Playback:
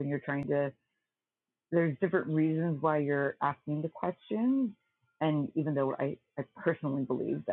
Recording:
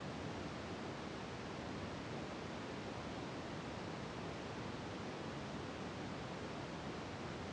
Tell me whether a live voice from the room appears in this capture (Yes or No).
No